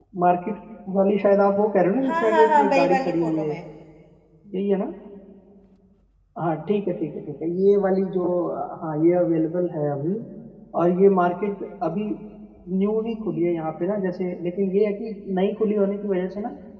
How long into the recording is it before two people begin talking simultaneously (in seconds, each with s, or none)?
2.0 s